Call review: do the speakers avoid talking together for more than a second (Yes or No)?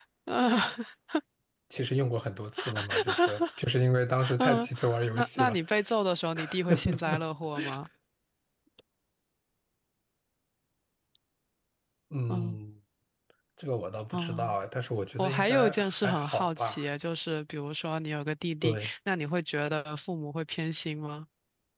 No